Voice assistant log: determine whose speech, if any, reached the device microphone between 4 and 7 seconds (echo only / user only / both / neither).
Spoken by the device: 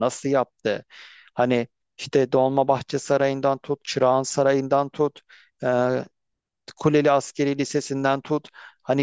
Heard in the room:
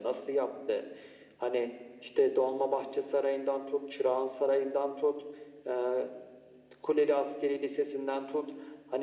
echo only